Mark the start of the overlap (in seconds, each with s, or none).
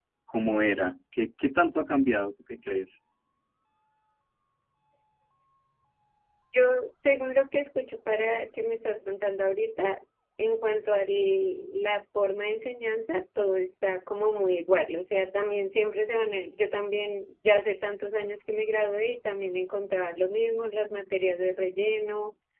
none